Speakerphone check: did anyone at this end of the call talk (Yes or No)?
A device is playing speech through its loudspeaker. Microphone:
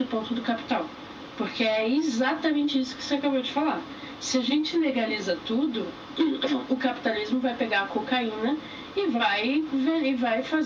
No